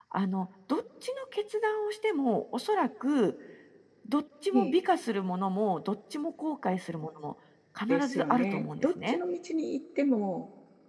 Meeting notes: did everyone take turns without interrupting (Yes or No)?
No